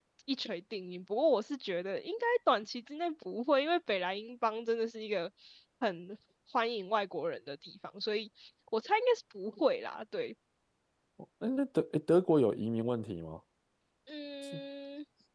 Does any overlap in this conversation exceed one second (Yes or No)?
No